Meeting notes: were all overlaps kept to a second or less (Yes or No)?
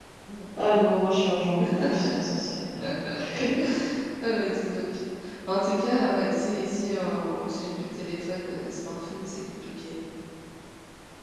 Yes